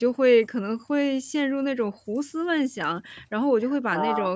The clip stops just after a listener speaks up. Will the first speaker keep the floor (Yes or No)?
Yes